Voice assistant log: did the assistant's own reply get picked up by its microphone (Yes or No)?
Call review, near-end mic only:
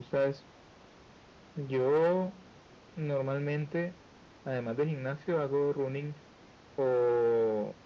Yes